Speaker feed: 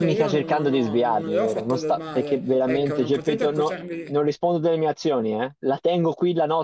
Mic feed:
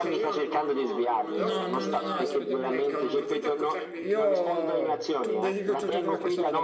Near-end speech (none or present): present